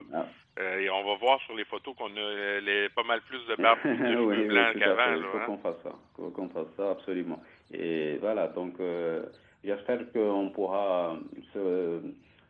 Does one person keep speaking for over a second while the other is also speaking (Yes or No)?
Yes